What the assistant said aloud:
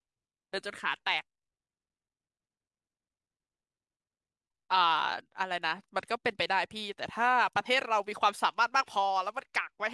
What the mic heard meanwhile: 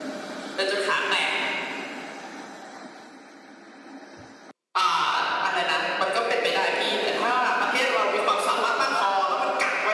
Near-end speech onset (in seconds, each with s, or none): 8.2 s